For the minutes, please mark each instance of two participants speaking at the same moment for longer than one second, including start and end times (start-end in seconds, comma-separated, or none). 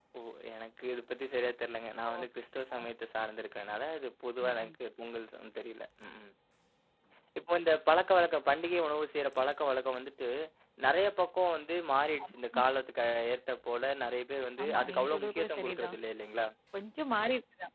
14.6-16.0